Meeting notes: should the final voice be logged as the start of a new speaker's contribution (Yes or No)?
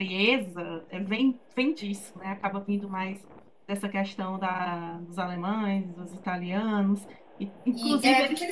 Yes